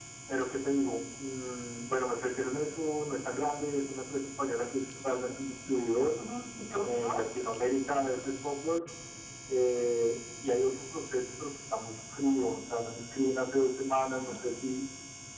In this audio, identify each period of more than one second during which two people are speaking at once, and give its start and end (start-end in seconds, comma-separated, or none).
none